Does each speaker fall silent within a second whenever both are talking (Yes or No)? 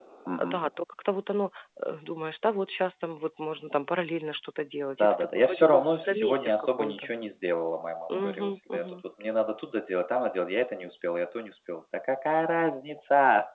No